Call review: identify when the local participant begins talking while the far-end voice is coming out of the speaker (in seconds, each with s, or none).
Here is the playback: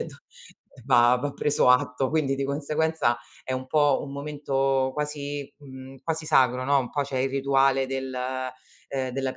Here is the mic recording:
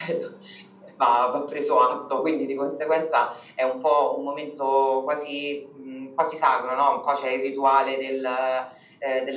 none